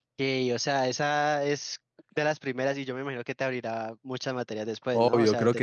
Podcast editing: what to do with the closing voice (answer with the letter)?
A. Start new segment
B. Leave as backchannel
A